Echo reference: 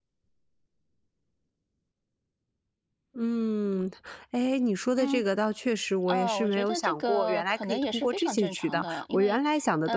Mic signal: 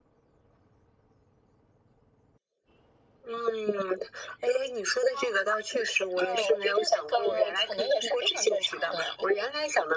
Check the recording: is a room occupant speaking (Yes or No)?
No